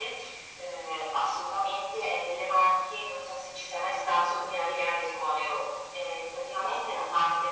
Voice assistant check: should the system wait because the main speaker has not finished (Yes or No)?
Yes